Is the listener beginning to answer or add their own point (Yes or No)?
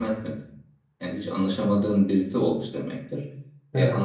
No